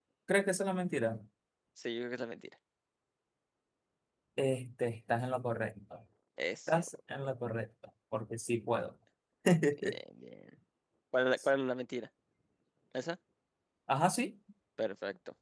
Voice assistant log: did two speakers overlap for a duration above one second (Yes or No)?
No